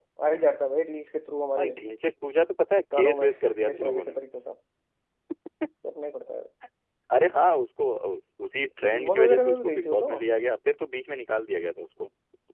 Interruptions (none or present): present